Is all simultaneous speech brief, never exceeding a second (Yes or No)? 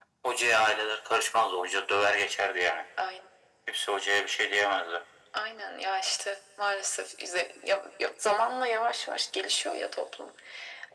Yes